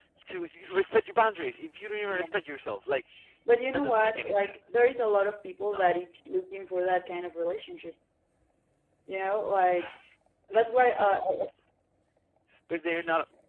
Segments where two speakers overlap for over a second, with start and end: 3.7-5.1

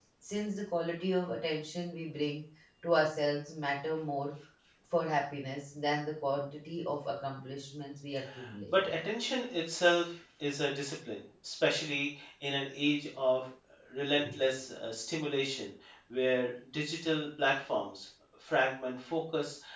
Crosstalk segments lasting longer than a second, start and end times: none

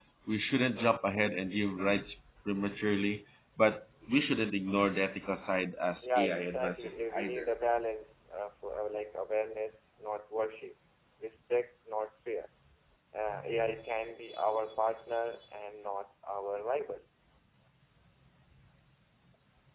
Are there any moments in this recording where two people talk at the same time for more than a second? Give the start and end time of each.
6.2-7.5

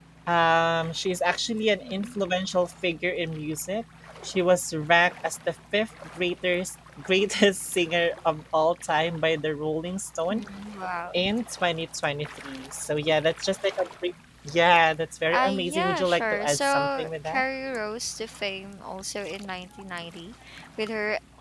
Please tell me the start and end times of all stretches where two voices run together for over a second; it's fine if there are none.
15.3-17.4

